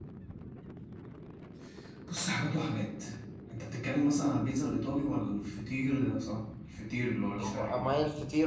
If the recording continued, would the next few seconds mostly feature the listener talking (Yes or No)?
Yes